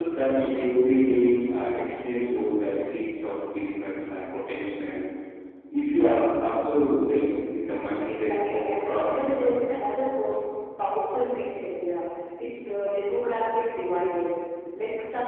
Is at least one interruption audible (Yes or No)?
Yes